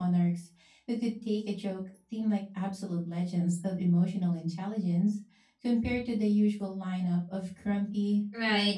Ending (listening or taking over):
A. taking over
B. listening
A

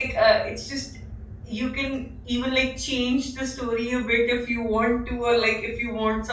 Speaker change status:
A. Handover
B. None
B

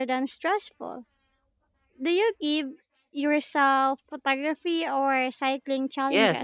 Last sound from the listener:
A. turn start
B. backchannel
A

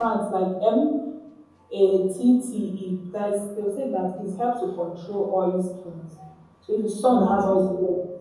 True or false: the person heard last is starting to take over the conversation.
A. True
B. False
B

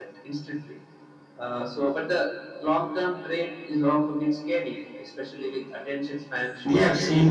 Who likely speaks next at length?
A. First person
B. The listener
B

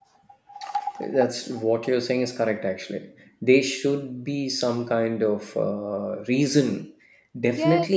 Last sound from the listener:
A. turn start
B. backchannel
A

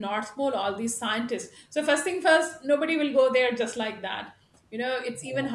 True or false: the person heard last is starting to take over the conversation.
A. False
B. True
A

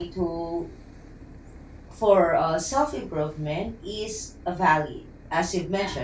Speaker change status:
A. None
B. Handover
A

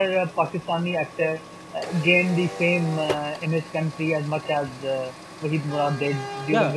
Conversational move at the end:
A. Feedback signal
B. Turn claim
B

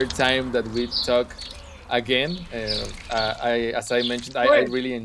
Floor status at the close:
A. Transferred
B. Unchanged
B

